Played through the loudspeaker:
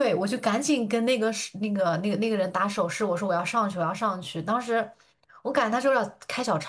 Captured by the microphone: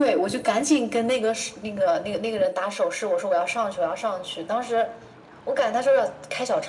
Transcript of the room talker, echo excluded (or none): none